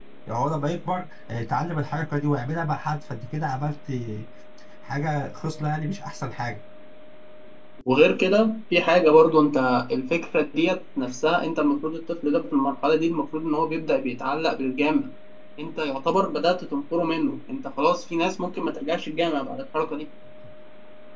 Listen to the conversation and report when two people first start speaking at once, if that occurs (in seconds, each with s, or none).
none